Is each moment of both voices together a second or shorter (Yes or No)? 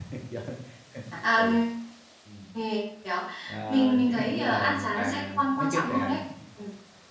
No